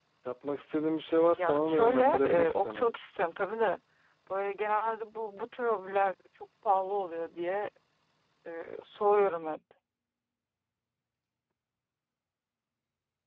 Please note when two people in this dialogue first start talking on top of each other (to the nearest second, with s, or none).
1 s